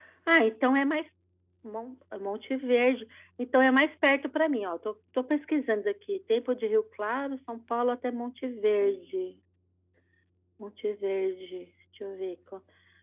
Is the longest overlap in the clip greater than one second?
No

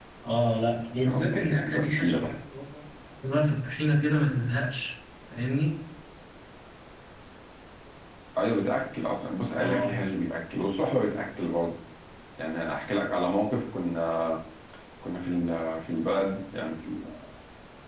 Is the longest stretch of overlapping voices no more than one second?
No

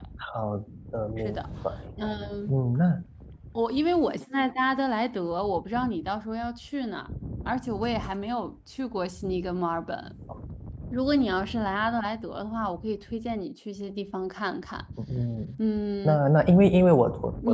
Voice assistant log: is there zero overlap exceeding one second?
Yes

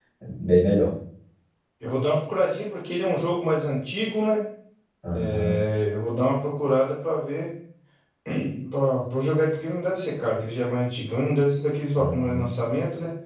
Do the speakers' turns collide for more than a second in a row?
No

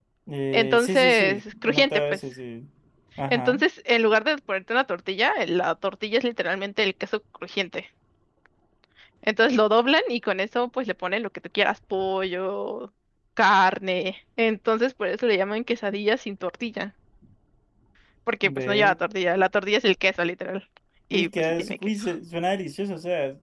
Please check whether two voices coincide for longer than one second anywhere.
Yes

